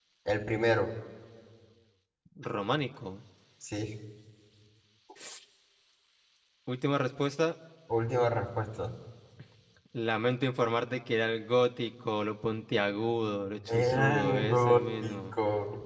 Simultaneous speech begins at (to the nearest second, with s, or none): 14 s